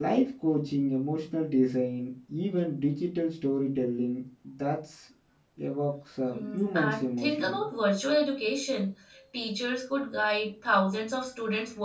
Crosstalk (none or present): present